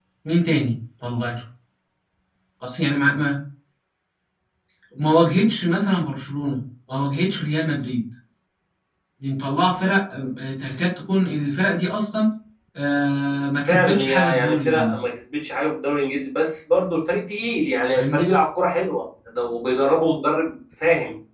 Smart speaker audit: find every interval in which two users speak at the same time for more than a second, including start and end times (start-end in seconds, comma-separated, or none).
13.6-15.0